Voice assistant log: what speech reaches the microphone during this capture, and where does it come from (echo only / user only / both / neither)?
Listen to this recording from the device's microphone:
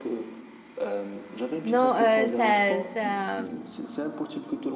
both